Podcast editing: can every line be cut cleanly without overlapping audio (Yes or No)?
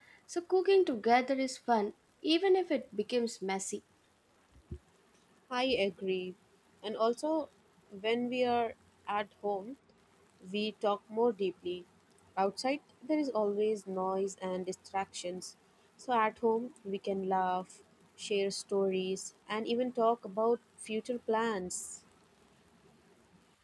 Yes